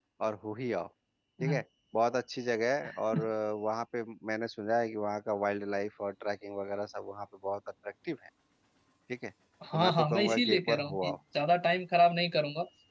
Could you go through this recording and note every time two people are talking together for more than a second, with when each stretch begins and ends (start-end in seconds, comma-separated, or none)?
9.7-11.2